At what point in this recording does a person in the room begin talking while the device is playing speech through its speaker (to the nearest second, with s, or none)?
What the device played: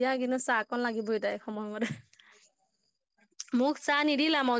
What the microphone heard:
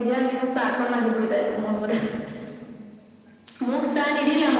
none